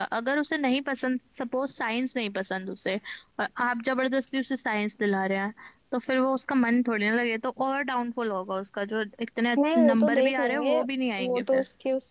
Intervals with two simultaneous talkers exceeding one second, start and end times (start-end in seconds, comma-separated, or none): 9.6-10.8